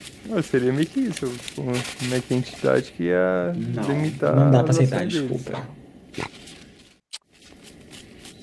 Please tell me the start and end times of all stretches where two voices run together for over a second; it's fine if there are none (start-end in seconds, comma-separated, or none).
3.6-5.3